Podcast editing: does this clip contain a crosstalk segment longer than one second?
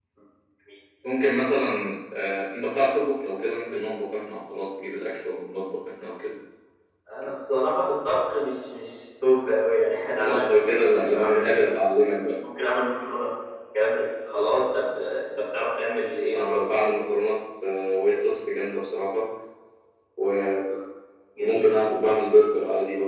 Yes, from 10.2 s

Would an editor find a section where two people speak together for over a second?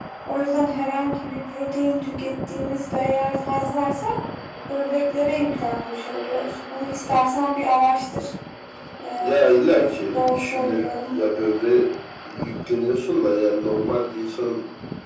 Yes, from 9.2 s

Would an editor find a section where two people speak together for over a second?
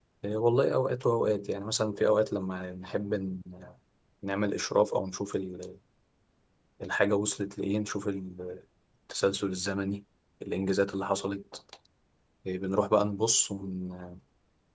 No

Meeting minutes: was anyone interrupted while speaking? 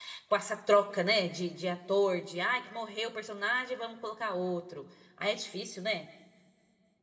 No

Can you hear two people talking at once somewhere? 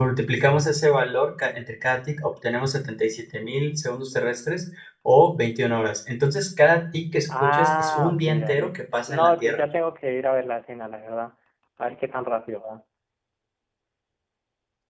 Yes, from 7.3 s

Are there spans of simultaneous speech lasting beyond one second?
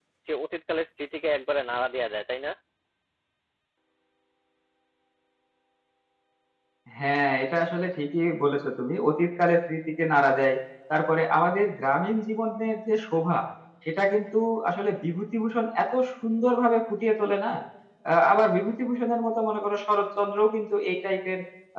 No

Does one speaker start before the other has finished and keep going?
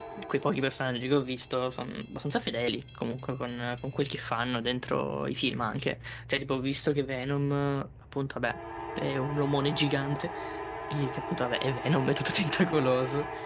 No

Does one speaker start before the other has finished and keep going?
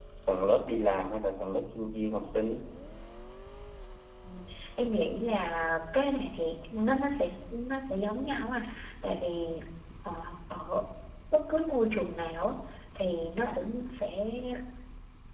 No

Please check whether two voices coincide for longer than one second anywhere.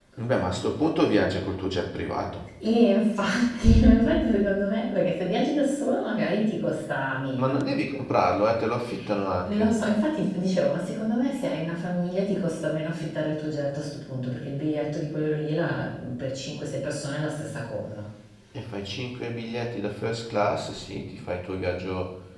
No

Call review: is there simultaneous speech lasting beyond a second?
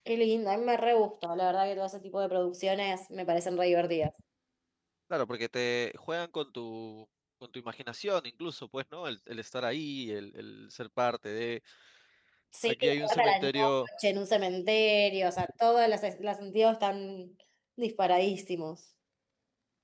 Yes, from 12.6 s

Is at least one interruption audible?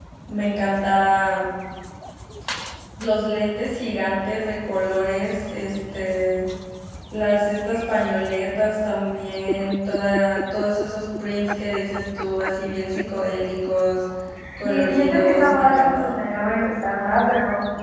Yes, from 14.7 s

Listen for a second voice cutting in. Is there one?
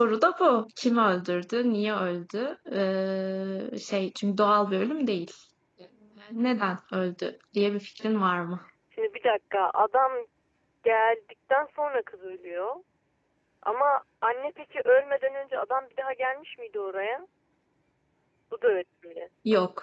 No

